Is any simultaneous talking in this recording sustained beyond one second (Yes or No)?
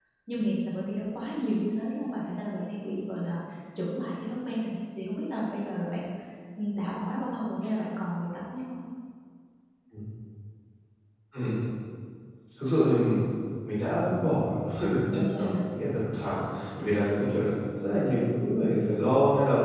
No